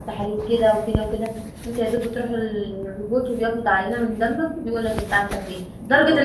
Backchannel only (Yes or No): Yes